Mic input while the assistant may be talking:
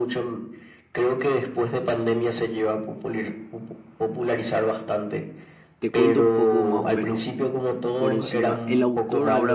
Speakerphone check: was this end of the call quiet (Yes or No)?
No